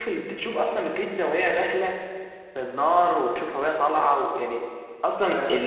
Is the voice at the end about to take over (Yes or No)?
No